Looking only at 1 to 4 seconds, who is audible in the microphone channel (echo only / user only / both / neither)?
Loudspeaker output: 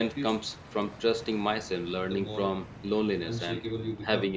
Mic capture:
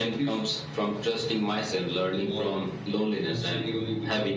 echo only